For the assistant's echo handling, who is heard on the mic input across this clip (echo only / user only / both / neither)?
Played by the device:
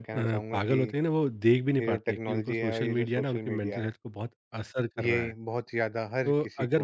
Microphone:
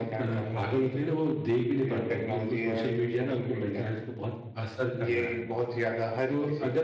echo only